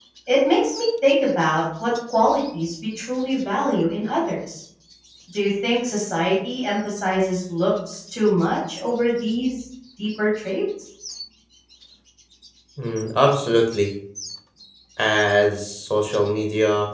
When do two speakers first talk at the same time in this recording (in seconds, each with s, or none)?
none